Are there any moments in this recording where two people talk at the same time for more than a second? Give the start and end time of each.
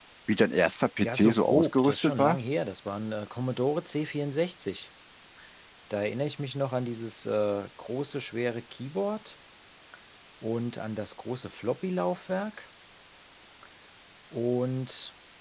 1.0-2.4

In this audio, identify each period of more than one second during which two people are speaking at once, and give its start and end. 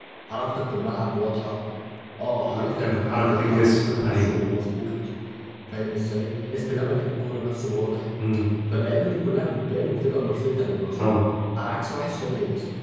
2.5-4.3

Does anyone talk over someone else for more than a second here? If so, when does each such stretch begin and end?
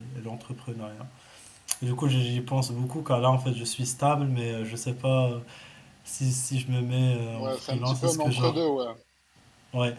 7.3-8.6

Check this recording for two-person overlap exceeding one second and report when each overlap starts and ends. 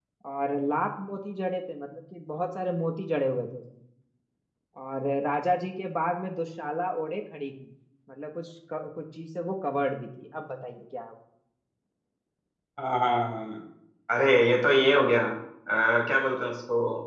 none

